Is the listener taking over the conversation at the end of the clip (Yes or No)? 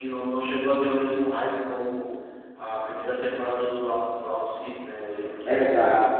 Yes